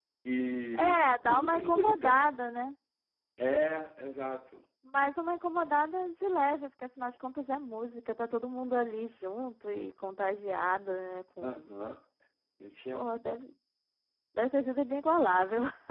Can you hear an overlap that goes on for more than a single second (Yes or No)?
Yes